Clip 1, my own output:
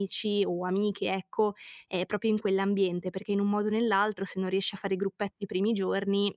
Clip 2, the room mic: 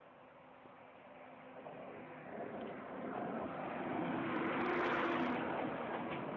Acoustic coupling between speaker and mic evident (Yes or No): No